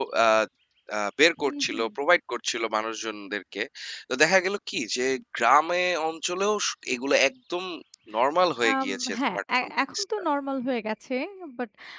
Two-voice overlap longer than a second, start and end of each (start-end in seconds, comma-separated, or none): 8.7-10.0